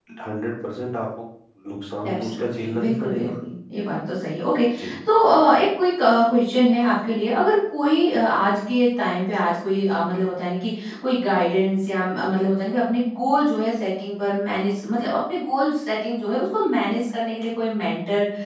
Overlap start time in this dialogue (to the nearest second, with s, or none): 2 s